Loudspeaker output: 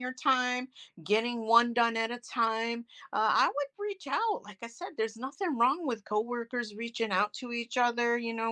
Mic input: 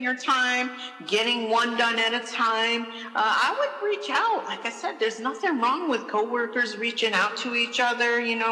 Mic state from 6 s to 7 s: echo only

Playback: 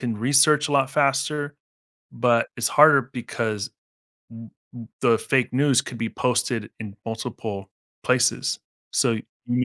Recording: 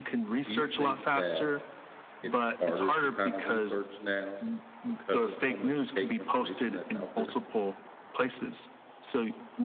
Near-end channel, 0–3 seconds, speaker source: both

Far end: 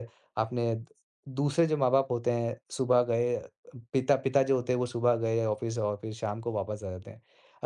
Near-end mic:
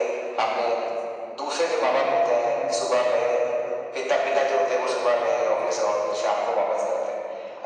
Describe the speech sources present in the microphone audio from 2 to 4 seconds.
echo only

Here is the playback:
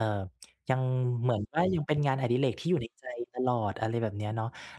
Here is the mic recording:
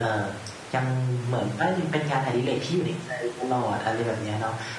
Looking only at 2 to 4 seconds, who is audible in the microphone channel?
echo only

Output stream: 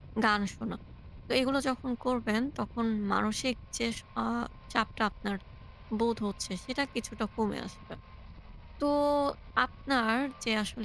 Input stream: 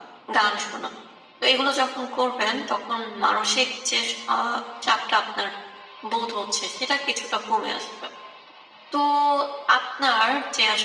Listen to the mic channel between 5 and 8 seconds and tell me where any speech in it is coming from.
echo only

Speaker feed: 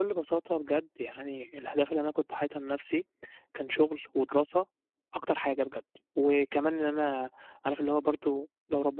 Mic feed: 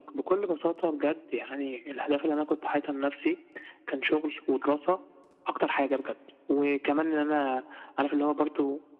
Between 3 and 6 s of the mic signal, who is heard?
echo only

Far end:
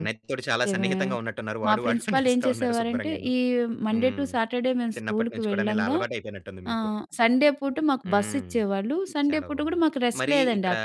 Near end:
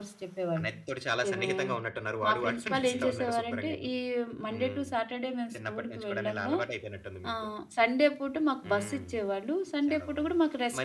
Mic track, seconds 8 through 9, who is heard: echo only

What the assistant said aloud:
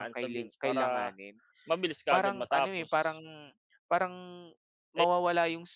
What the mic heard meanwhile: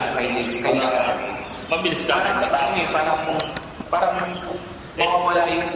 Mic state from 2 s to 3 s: echo only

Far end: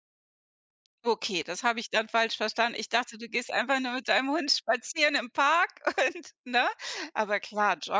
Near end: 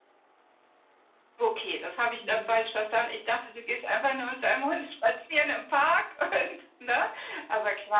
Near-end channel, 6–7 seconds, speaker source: echo only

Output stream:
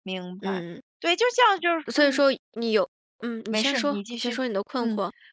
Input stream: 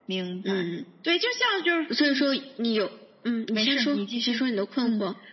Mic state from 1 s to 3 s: echo only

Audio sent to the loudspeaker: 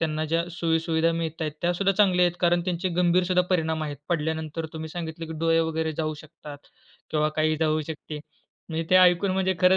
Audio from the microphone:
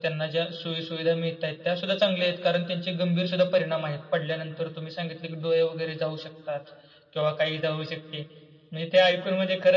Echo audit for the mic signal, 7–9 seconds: echo only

